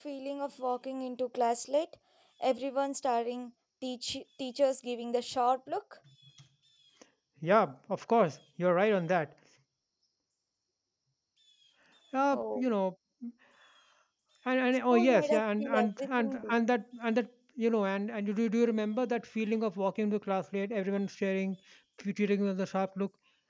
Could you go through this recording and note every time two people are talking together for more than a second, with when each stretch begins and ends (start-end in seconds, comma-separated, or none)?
14.9-16.5